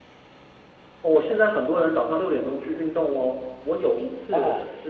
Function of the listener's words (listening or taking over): listening